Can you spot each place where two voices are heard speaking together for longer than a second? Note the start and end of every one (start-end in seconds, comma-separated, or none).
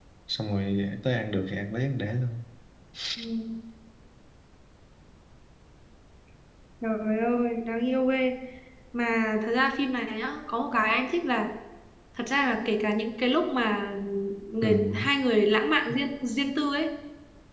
none